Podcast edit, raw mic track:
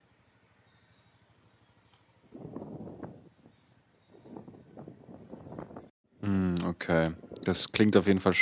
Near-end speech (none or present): present